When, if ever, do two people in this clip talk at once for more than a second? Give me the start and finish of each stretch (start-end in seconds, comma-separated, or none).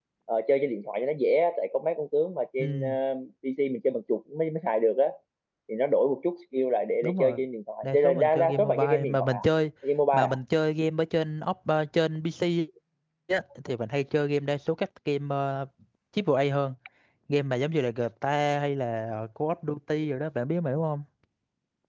7.8-9.4